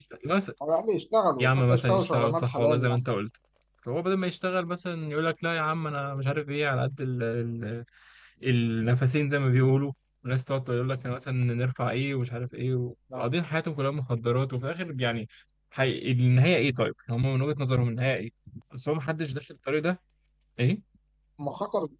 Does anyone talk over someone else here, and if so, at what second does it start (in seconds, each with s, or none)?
1.4 s